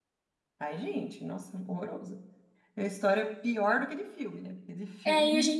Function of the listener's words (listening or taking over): taking over